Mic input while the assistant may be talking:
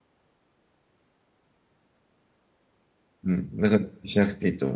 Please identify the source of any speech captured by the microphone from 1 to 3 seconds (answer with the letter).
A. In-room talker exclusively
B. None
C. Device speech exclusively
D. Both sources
B